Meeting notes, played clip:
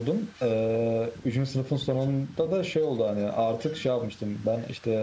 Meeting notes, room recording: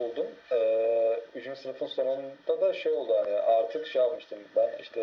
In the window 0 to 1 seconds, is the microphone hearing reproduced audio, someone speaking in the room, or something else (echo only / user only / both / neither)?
echo only